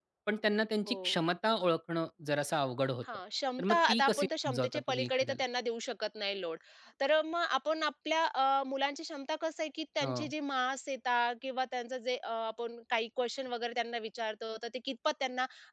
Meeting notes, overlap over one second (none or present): present